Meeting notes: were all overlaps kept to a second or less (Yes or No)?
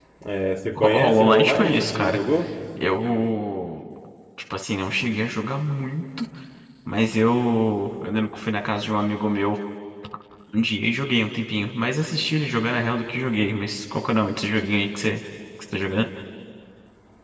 No